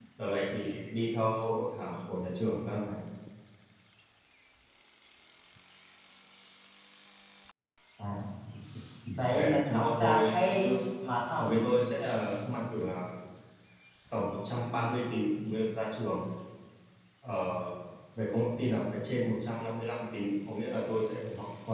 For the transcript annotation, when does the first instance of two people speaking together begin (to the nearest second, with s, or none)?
9 s